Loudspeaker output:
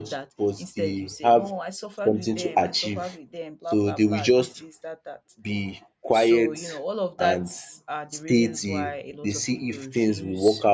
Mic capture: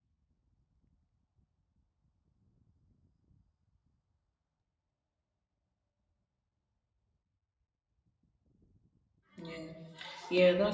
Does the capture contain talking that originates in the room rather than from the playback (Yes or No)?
Yes